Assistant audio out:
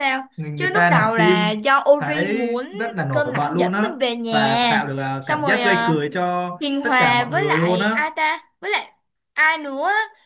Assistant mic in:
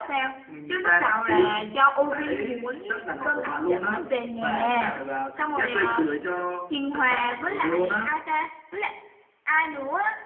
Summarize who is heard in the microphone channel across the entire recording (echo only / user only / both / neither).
echo only